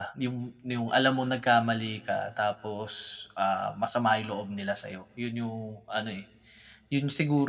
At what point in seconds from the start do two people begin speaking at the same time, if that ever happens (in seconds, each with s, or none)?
none